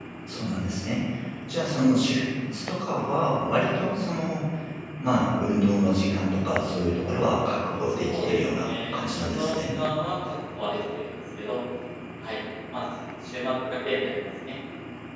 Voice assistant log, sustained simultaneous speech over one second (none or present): present